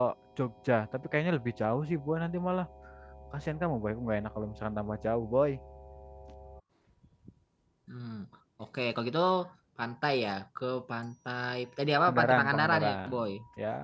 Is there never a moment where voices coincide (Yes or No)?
No